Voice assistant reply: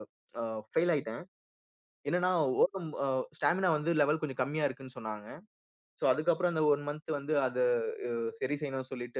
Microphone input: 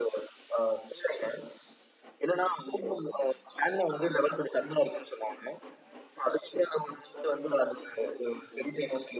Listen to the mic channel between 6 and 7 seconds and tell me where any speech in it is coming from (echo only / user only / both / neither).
echo only